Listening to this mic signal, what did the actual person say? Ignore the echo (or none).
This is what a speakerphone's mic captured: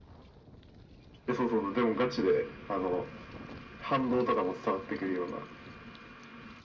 none